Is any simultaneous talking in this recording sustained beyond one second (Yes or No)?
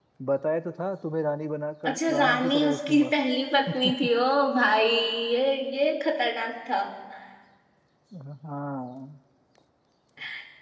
Yes